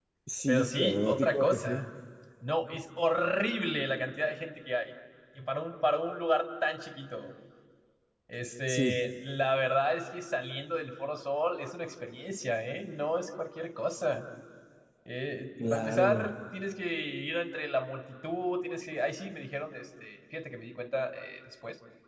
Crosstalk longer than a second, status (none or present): present